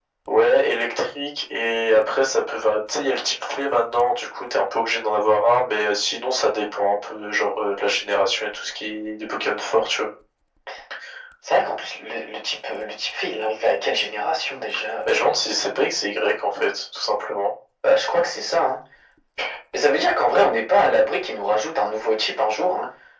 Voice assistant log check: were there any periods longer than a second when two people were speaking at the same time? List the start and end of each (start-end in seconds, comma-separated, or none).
none